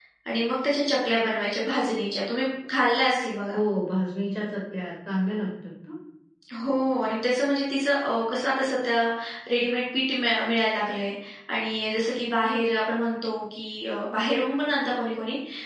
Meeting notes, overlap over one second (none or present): none